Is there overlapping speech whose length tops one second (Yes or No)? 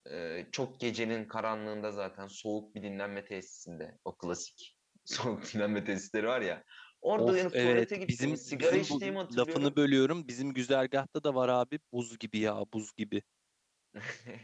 Yes